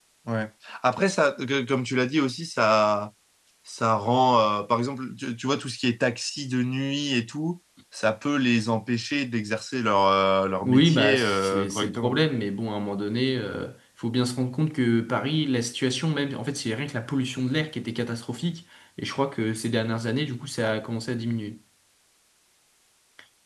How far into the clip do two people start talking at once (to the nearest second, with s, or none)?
11 s